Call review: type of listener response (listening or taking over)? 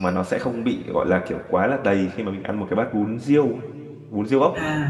taking over